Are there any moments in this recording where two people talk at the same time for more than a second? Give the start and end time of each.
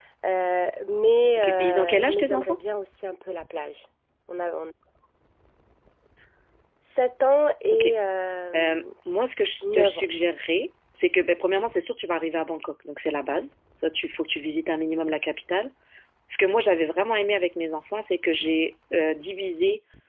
1.4-2.6

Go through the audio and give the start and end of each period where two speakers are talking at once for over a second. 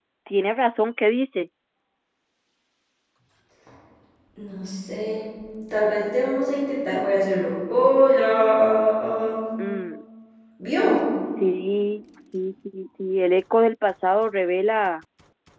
none

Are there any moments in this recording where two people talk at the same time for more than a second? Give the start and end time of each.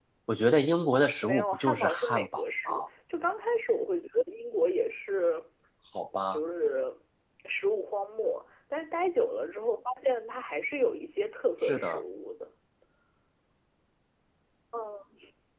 1.2-2.7

